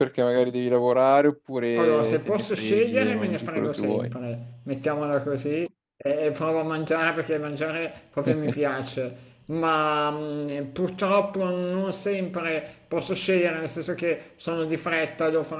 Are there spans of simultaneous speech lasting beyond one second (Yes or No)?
Yes